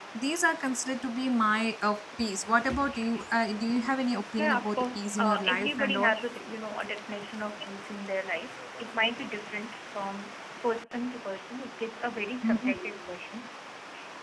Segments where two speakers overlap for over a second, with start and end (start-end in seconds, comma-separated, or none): 4.4-6.1